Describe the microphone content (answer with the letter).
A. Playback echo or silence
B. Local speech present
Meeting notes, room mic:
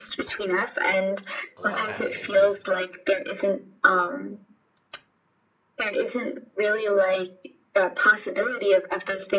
B